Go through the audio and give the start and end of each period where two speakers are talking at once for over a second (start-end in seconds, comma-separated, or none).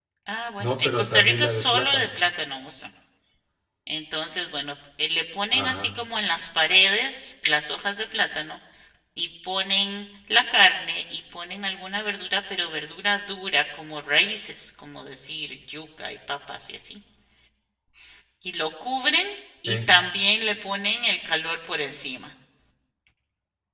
0.6-2.1